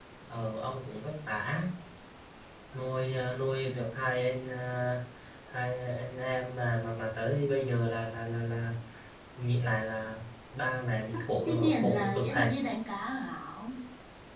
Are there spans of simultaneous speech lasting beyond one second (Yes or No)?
Yes